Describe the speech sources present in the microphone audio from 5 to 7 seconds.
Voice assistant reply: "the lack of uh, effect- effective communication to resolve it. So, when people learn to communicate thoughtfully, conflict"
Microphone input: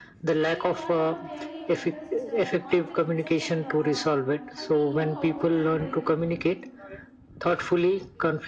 both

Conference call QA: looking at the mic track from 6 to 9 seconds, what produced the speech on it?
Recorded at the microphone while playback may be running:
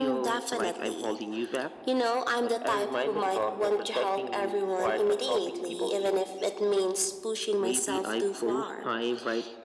echo only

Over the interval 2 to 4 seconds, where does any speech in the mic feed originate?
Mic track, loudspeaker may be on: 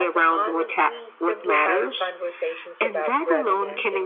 both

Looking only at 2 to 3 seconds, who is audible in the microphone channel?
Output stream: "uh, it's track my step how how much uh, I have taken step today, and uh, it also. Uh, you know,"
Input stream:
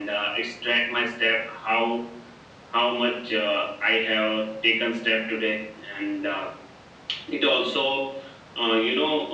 echo only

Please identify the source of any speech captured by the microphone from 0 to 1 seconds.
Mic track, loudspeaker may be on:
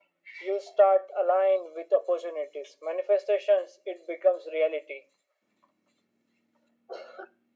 echo only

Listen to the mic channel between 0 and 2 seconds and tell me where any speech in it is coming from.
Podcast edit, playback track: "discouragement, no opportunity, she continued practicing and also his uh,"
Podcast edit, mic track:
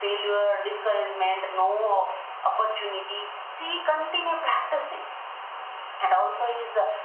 echo only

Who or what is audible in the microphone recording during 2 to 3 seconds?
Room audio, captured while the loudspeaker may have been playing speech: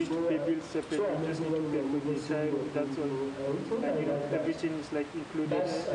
both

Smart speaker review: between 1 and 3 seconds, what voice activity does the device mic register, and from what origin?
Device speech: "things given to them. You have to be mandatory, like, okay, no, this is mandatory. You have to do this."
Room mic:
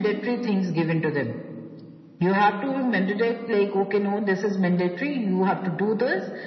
echo only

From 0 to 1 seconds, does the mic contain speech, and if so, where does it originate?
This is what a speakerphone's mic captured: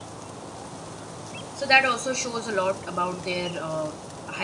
neither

